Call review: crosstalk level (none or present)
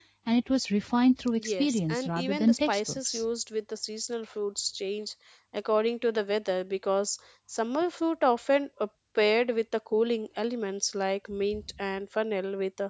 present